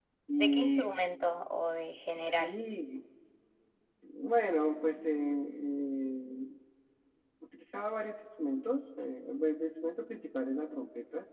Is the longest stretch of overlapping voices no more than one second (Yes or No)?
Yes